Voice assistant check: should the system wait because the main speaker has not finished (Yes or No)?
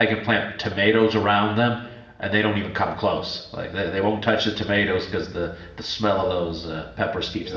No